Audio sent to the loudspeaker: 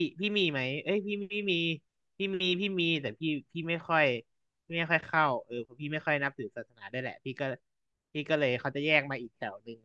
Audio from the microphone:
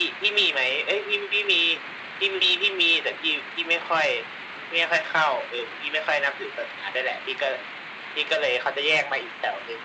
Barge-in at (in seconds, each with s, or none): none